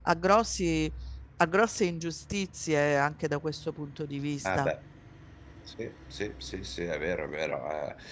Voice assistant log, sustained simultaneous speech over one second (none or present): none